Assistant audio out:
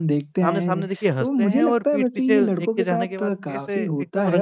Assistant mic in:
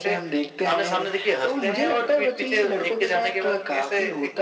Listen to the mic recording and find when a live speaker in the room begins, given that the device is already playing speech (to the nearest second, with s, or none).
none